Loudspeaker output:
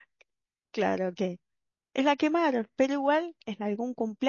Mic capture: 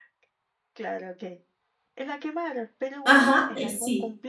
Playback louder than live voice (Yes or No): No